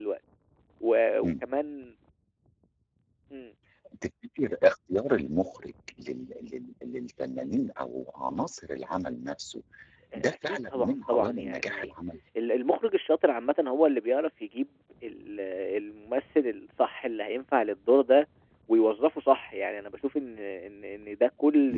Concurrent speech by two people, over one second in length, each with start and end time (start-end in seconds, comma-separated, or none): 10.2-11.9